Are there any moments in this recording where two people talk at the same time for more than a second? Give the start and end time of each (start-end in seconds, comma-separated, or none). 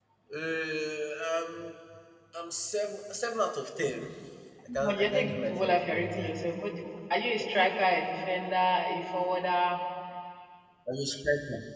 4.8-6.4